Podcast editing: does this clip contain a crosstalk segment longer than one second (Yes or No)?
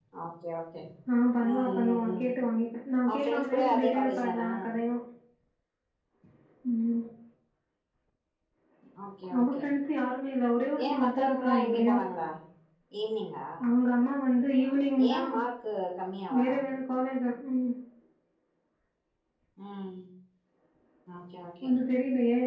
Yes